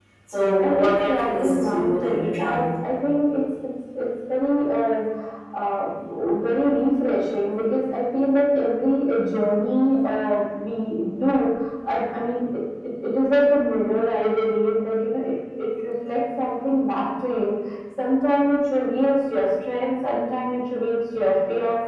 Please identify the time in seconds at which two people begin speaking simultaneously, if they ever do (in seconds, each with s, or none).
0.6 s